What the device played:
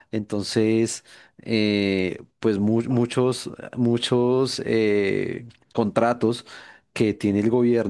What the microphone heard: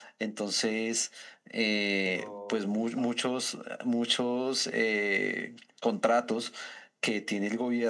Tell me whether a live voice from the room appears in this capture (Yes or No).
Yes